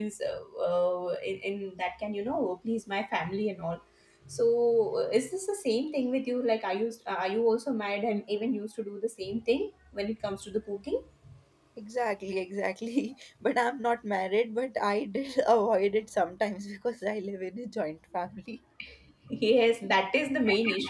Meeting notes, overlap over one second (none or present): none